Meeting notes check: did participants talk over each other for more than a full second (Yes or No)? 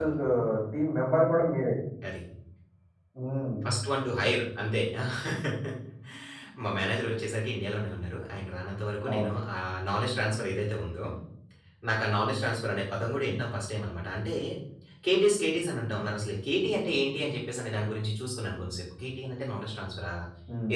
No